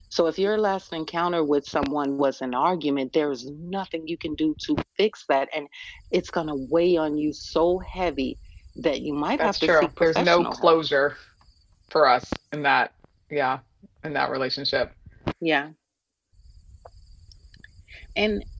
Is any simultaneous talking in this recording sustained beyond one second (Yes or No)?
Yes